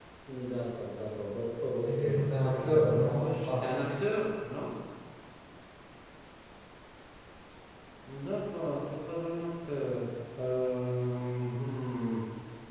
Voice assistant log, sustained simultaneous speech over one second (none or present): present